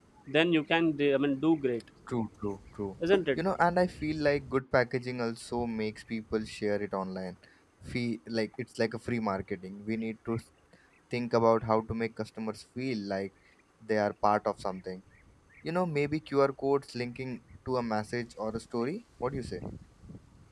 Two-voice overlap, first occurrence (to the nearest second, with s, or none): none